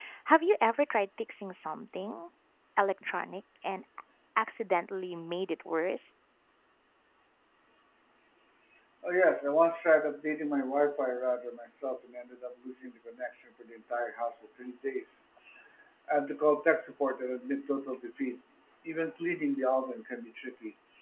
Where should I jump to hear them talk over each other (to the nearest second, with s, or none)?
none